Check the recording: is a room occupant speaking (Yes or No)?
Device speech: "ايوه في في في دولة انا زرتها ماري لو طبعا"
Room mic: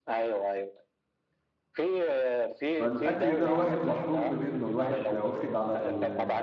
Yes